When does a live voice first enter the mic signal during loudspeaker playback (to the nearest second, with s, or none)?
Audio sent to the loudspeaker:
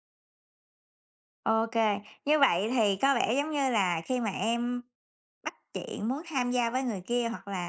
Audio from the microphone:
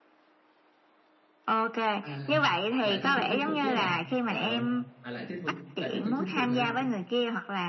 2 s